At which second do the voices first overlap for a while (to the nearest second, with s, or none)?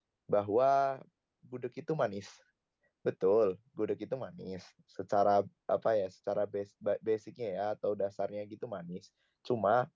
none